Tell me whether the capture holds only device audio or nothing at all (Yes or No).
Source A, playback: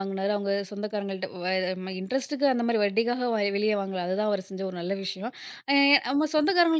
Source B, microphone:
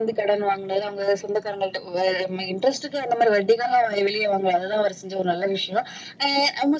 Yes